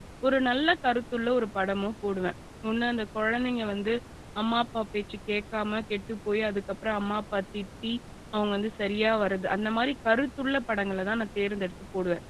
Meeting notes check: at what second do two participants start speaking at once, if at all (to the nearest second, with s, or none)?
none